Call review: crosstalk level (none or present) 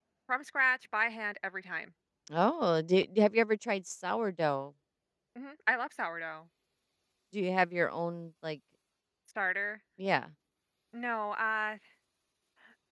none